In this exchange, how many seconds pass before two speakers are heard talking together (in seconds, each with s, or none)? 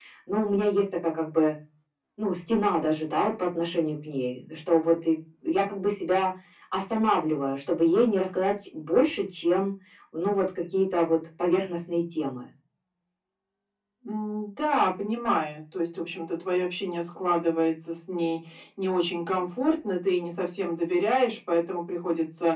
none